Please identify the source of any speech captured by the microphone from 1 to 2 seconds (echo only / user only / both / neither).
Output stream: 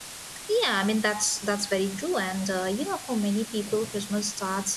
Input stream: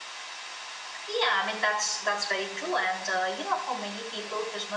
echo only